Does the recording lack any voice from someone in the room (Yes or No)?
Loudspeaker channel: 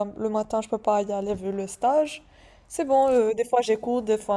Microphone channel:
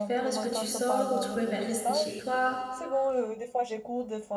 No